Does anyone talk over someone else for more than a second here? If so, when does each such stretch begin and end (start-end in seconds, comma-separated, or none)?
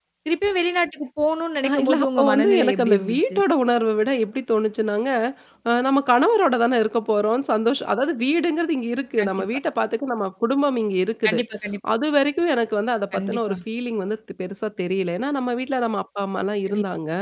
1.7-3.4